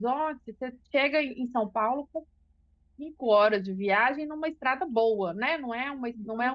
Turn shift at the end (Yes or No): Yes